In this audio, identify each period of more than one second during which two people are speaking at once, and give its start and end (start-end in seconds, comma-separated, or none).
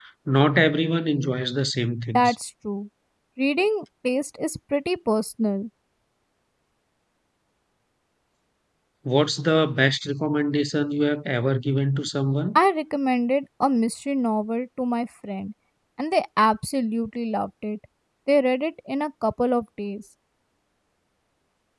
none